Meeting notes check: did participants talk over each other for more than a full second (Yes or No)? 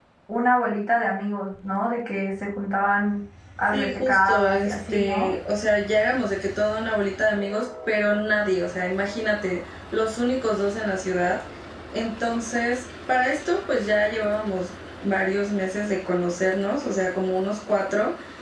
Yes